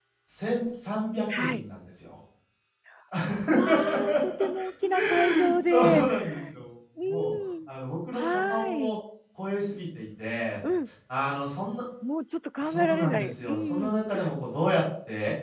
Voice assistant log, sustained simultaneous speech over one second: present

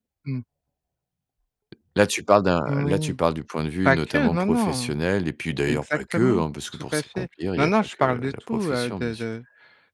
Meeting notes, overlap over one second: present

